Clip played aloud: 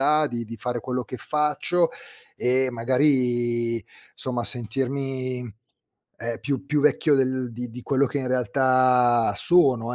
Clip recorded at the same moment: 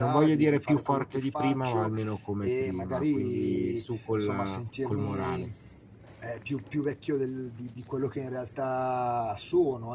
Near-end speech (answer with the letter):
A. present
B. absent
A